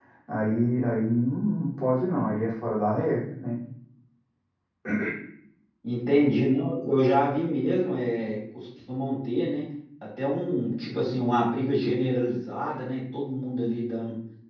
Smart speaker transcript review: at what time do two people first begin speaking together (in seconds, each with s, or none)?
none